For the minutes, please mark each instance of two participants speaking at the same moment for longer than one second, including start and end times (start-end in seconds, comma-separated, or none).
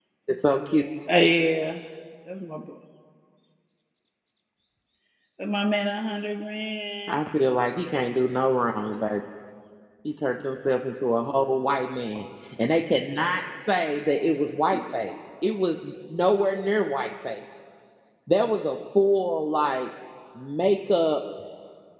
none